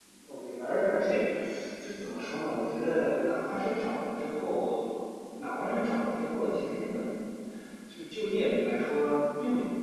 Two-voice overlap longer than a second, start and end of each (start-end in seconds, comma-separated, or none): none